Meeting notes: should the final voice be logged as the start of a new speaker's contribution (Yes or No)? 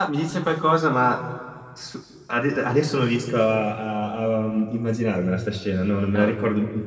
No